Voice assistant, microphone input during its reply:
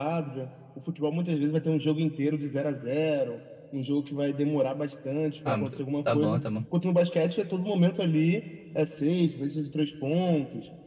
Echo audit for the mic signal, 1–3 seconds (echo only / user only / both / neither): echo only